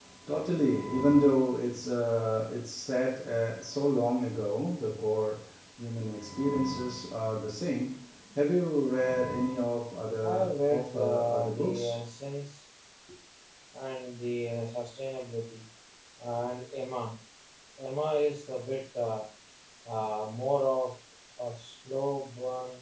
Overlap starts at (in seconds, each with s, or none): 10.2 s